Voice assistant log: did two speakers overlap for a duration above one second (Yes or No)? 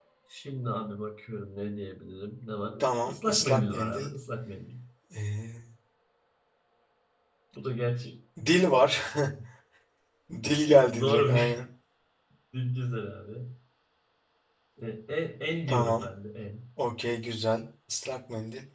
Yes